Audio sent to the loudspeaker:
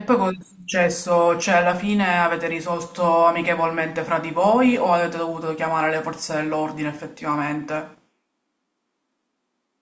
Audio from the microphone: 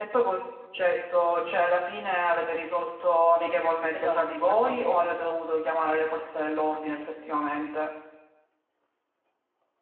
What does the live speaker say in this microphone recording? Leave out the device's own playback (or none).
Esatto, esatto.